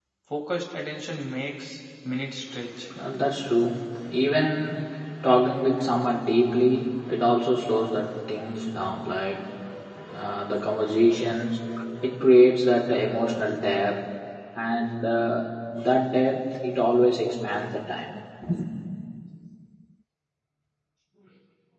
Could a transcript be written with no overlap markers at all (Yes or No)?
Yes